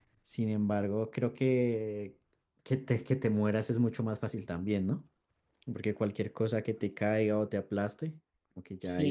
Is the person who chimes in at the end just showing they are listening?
No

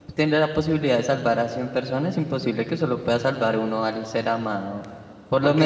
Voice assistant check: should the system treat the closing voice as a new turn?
Yes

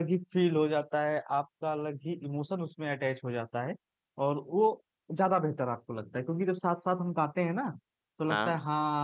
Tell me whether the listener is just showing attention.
Yes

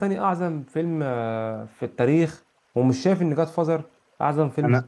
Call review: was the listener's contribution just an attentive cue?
No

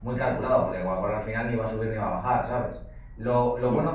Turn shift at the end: No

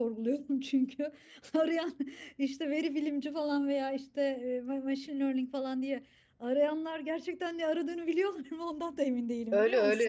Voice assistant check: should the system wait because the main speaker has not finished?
No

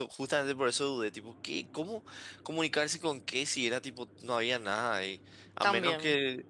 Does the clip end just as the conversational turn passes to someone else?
No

